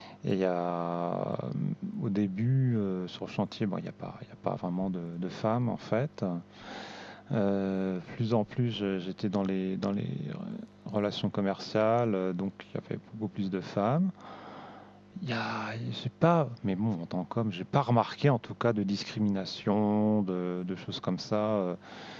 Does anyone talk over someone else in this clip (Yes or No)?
No